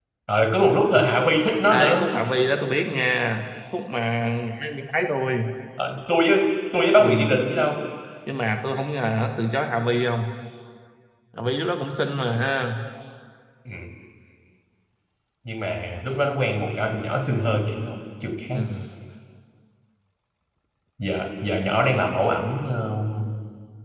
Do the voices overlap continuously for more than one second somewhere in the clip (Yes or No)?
No